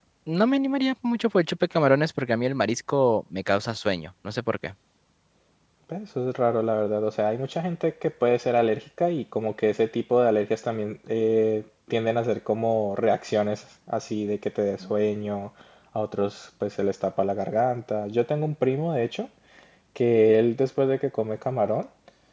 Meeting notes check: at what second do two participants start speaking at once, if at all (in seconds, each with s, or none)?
none